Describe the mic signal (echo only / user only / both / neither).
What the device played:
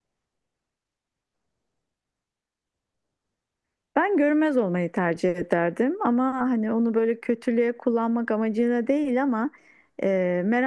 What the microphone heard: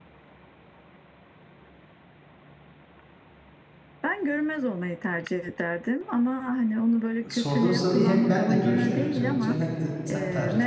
both